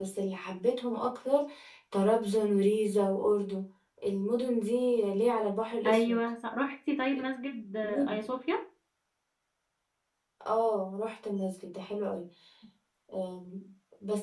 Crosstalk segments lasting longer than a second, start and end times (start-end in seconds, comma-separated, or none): none